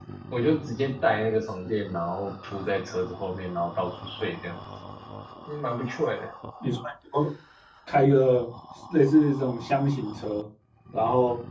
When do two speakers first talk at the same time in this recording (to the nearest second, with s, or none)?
none